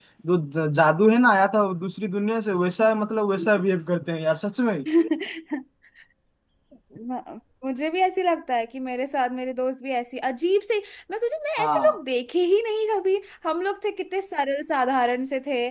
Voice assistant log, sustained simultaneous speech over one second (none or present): none